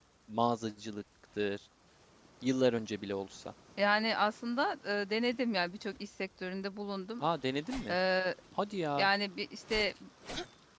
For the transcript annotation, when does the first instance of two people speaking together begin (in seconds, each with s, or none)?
none